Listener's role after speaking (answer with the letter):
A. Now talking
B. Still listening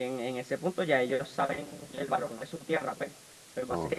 B